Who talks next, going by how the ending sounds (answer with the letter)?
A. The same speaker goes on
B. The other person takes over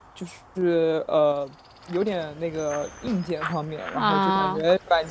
A